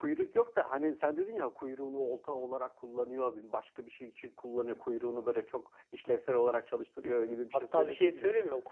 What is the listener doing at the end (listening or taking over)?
taking over